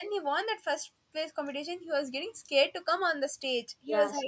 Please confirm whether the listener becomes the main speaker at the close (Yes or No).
Yes